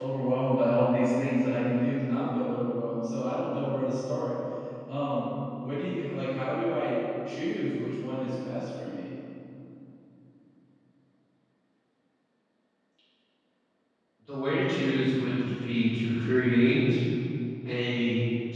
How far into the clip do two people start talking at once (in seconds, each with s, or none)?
none